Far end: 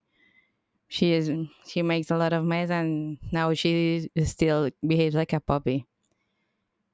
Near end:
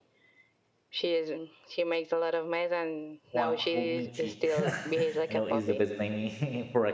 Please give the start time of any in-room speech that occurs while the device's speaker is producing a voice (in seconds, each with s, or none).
3.3 s